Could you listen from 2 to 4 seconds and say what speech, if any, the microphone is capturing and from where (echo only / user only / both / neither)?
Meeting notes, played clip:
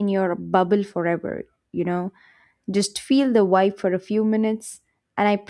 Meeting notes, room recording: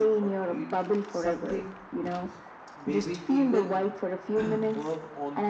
both